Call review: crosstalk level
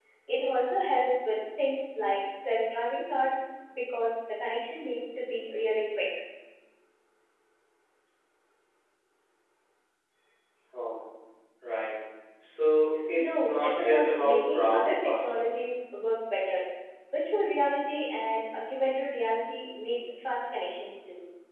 present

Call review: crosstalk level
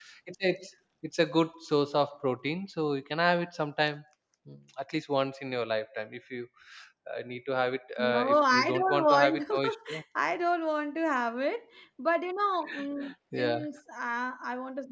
present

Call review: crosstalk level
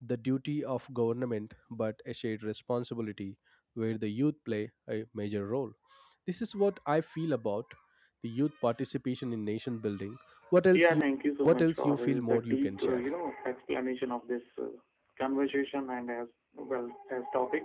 present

